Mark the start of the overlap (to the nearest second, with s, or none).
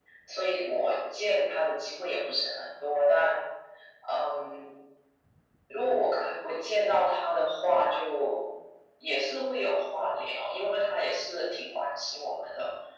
none